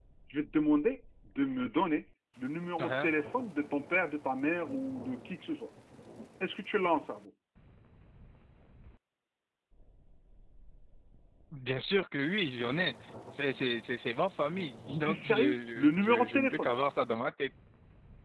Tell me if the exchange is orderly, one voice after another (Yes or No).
No